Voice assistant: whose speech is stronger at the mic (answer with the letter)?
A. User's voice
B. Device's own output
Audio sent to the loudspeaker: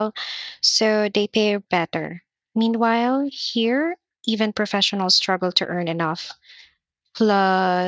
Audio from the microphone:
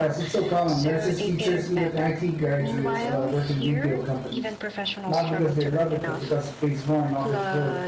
A